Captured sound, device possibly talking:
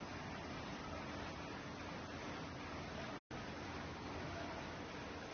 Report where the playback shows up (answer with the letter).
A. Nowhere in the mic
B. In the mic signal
A